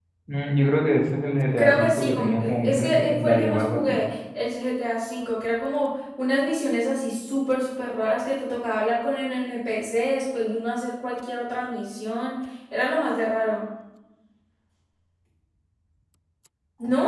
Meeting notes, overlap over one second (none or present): present